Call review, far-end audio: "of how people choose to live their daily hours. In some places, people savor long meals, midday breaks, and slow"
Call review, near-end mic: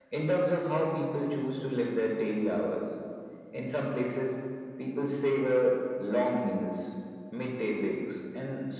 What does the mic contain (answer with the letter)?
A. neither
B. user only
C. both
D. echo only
D